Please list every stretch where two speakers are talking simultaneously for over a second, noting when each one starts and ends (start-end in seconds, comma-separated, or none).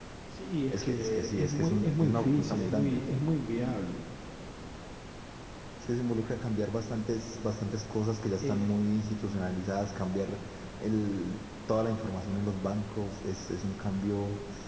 0.7-3.0